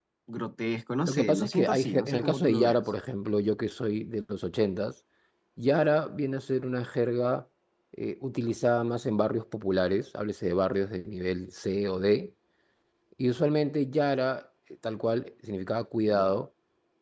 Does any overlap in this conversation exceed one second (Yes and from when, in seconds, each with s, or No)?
Yes, from 1.0 s